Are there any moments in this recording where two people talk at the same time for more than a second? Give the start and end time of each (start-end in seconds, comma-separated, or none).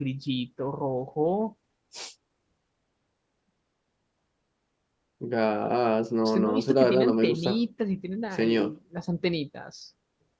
6.2-7.6